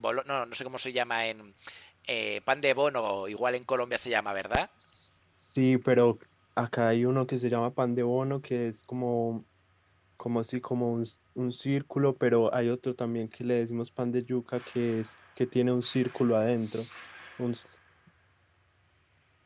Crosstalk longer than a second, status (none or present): none